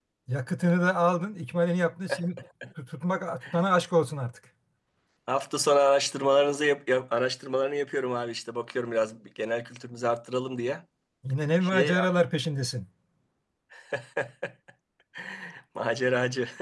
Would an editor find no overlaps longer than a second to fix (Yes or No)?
Yes